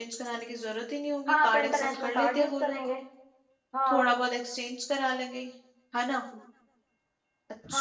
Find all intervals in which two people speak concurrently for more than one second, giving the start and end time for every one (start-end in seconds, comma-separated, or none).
1.3-2.8